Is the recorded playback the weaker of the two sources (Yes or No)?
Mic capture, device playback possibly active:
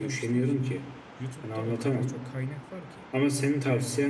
No